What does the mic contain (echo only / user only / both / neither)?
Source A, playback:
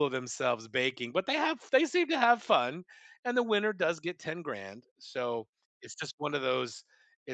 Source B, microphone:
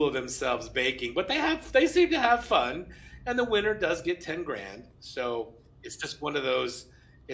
echo only